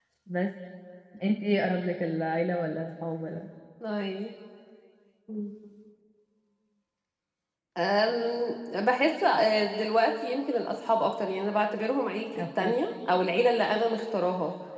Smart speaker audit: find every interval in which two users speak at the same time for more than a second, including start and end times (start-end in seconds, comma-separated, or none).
none